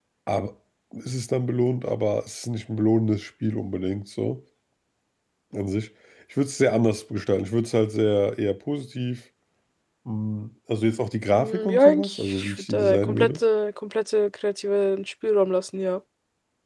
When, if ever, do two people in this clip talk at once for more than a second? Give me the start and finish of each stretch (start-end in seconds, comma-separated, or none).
11.3-13.4